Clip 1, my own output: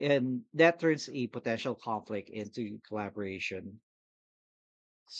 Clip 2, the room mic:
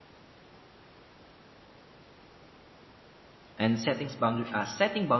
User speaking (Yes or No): Yes